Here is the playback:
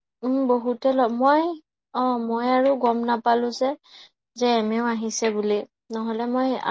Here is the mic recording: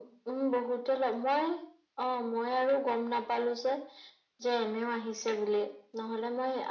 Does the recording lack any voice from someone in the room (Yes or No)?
Yes